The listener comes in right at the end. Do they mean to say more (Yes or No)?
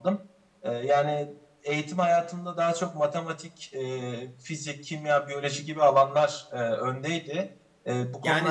Yes